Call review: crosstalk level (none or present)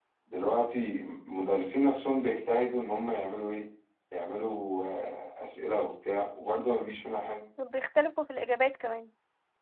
none